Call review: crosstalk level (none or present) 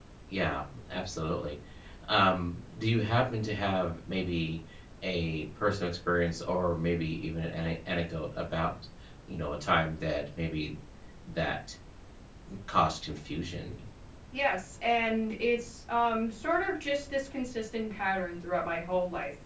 none